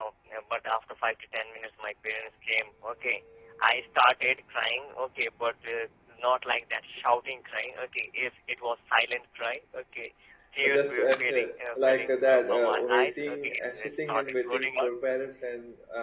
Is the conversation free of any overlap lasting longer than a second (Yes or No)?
No